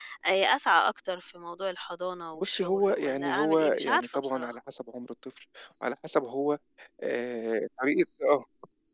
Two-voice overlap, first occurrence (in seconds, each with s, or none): 2.3 s